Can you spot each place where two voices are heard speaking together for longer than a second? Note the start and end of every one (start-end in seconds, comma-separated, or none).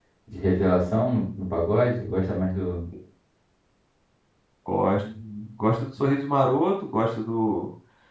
none